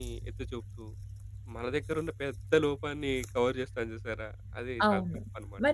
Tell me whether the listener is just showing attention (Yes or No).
No